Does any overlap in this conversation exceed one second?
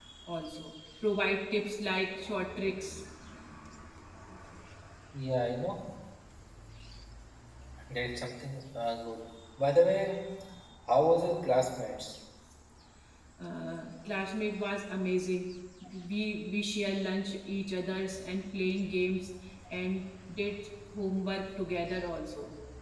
No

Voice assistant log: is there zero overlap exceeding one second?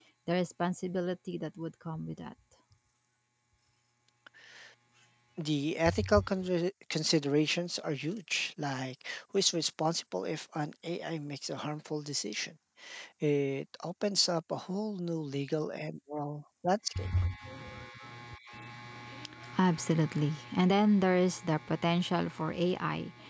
Yes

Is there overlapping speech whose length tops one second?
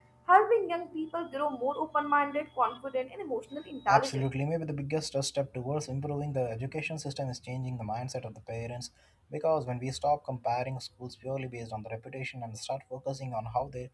No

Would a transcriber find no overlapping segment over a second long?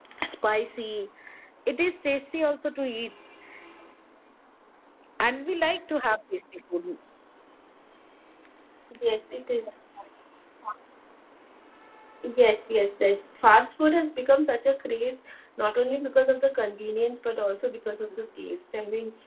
Yes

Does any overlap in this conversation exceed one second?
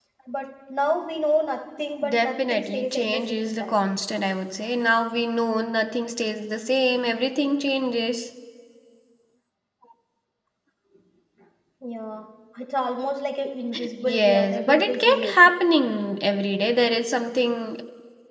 Yes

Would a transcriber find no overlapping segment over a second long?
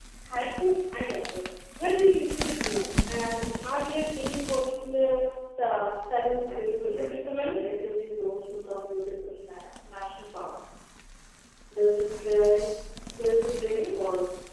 No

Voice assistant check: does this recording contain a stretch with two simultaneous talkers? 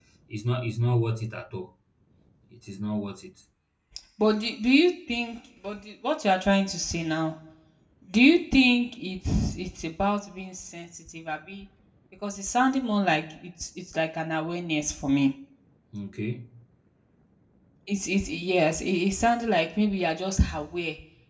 No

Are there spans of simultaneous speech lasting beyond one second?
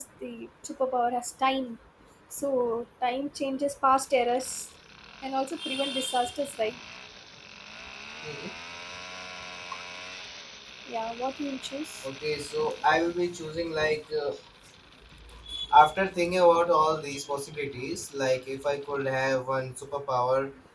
No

